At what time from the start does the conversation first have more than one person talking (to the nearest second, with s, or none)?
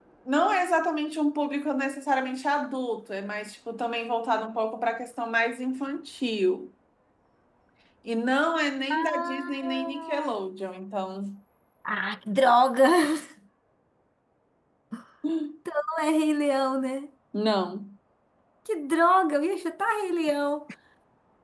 9 s